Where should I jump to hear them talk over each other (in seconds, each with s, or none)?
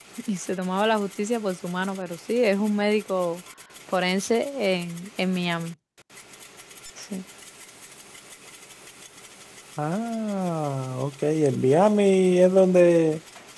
none